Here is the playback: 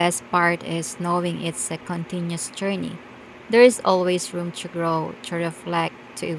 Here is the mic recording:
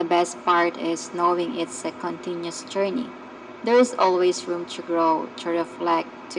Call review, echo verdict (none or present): present